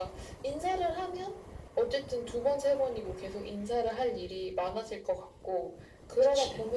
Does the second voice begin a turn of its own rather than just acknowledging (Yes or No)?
No